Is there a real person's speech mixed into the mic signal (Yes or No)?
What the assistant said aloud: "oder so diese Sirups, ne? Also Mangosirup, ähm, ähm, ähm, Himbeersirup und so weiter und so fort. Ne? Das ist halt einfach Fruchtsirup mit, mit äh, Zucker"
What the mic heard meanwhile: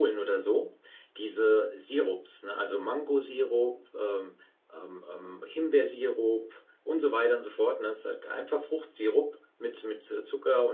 No